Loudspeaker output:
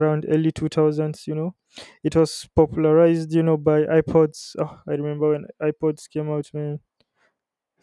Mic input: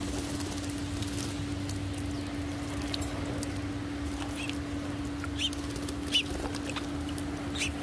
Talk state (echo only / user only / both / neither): neither